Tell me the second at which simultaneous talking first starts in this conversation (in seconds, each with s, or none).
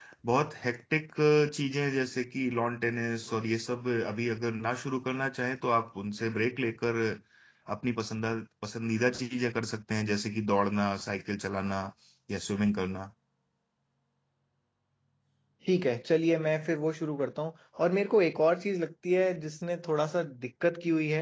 none